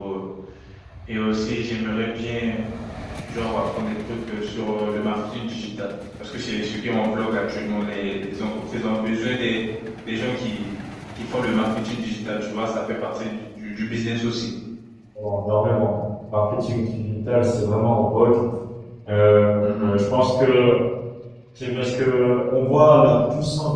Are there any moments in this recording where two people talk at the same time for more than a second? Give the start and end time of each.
none

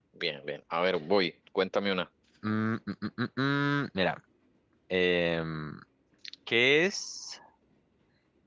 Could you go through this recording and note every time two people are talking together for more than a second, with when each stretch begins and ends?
none

